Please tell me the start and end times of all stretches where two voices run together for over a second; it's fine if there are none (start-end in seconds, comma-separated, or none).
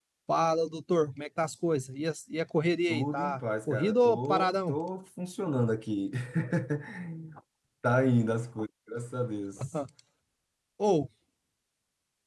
2.9-4.8